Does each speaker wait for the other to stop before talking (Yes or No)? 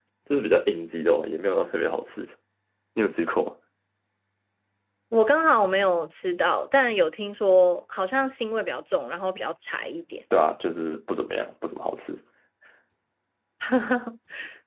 Yes